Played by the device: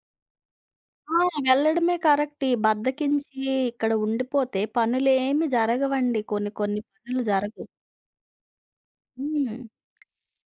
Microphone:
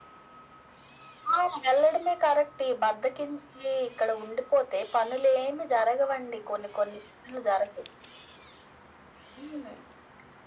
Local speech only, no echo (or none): none